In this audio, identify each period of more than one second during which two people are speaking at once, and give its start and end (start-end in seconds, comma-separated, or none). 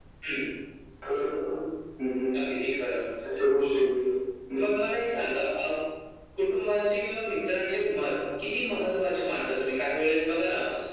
none